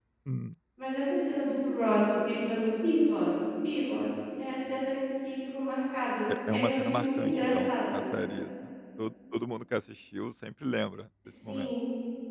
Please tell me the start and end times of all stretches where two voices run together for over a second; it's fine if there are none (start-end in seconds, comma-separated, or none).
6.4-8.1